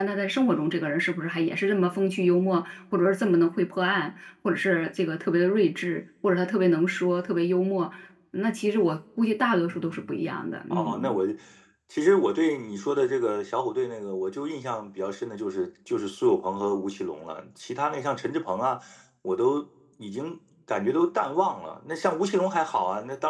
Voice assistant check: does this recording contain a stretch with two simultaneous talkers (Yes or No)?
Yes